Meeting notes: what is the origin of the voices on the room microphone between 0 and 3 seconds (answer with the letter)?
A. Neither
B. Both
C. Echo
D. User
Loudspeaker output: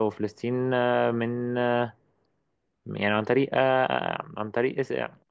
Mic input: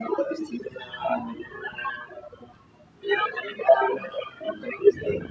C